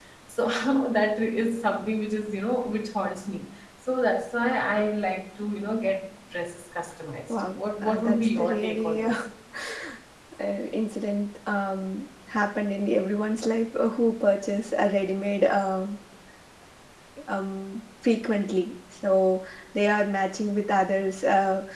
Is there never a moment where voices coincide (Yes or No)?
No